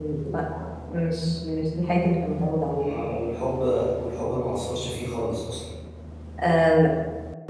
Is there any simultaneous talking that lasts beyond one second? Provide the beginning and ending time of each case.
none

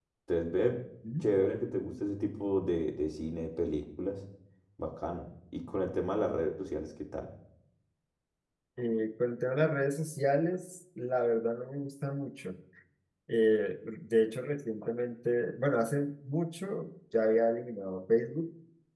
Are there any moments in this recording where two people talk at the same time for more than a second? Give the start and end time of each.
none

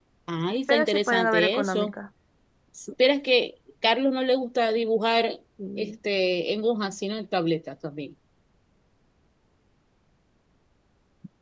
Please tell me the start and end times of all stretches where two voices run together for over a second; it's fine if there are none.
0.7-1.9

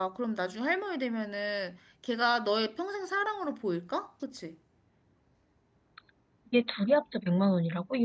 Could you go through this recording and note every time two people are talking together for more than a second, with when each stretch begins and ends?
none

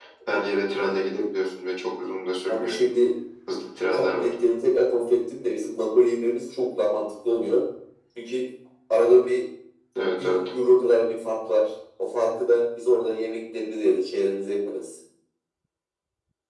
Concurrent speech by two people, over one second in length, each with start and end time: none

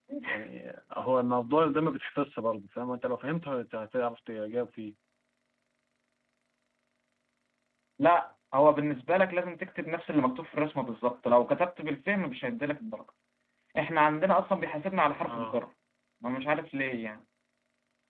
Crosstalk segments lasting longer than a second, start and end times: none

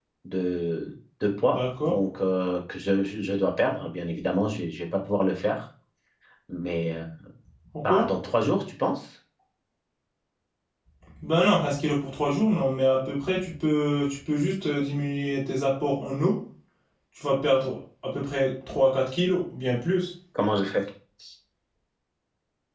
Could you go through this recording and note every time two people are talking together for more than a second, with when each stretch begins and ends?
none

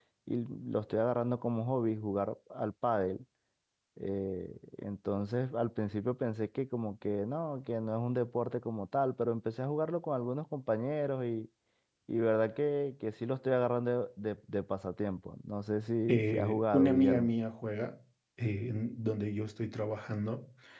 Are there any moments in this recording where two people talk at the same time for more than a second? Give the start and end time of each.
16.1-17.3

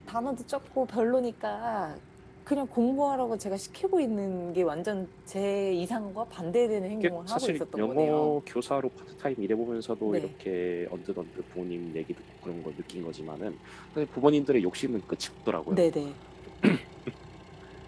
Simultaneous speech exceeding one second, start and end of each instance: 7.0-8.4

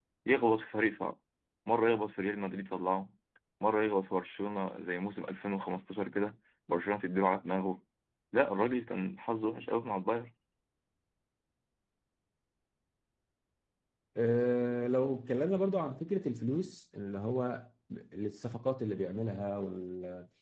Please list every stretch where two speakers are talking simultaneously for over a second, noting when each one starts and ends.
none

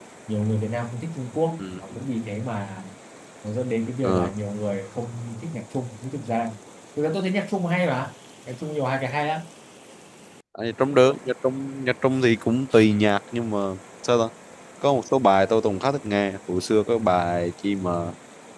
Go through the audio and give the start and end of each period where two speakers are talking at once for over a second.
none

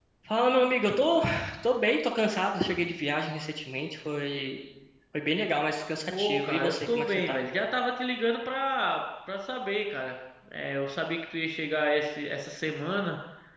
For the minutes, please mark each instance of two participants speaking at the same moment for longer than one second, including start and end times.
6.1-7.4

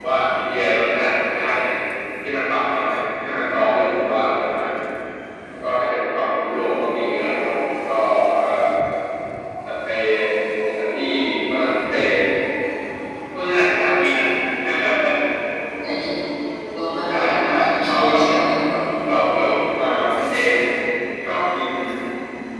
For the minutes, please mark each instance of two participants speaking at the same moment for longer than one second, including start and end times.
17.1-18.5

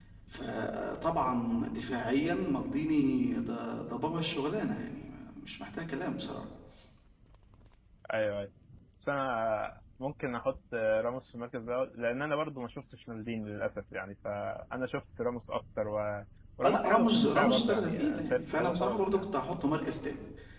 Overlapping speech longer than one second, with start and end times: 16.6-19.4

